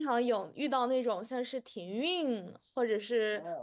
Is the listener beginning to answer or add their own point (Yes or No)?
Yes